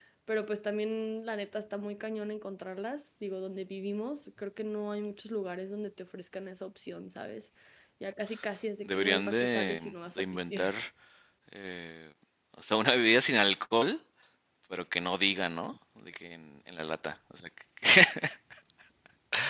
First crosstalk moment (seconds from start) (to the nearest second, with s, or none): 9 s